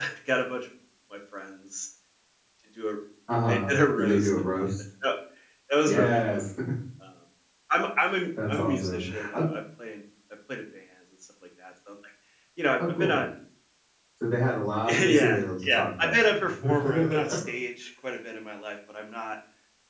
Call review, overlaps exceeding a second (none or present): present